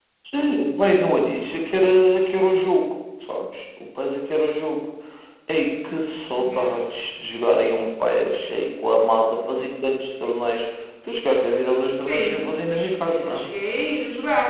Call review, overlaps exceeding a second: present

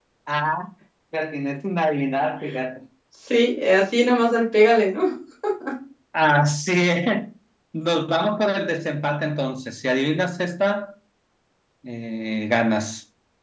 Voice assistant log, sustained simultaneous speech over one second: none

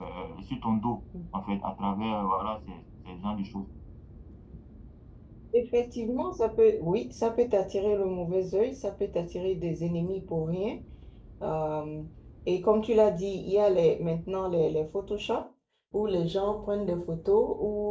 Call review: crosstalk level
none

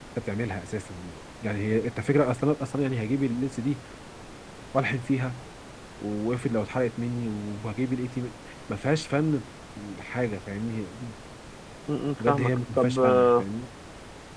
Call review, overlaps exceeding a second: present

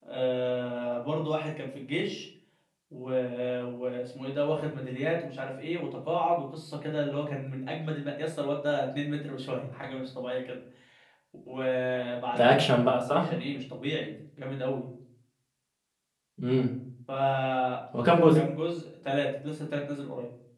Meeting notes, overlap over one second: none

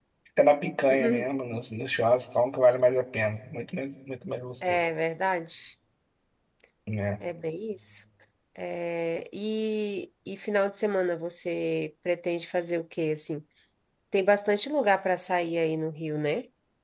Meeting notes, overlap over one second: none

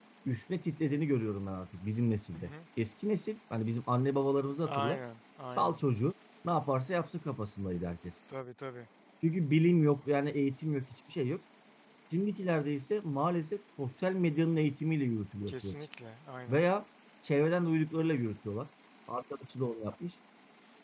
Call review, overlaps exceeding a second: none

